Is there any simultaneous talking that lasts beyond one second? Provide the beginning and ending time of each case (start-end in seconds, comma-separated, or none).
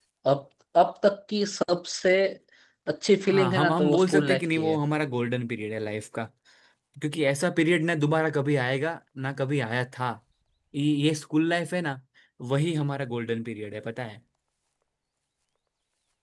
3.3-4.8